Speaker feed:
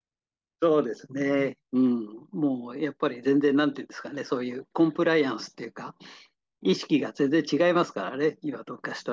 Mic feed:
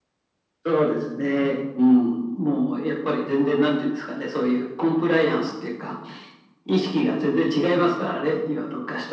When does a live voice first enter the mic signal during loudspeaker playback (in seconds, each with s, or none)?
none